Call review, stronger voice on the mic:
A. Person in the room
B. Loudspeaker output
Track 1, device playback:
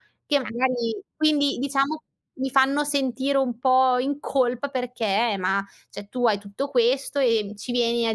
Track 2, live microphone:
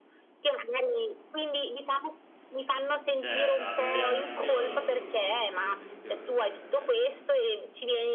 B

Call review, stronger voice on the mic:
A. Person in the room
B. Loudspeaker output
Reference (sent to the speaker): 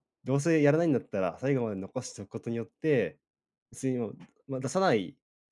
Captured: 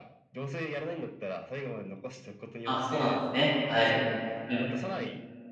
A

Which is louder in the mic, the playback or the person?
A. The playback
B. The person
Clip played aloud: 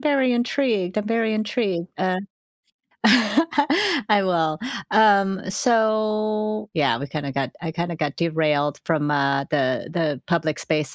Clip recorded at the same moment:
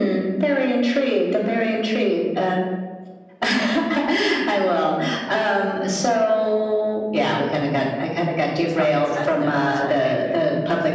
A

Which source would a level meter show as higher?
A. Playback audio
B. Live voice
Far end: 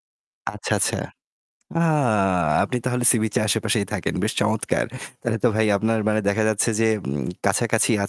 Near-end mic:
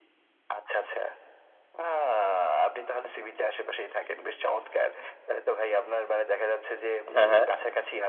B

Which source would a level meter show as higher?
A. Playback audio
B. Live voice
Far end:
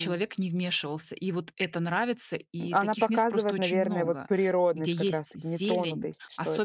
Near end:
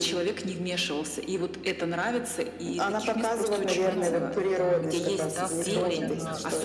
A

